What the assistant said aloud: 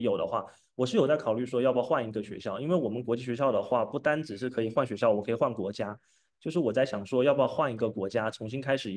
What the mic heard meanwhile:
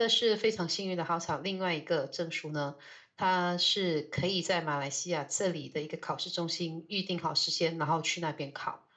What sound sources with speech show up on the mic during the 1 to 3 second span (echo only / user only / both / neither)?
user only